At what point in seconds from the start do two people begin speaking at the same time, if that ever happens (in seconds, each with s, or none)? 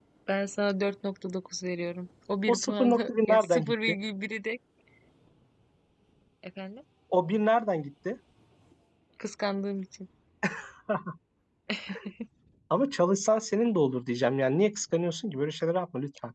2.5 s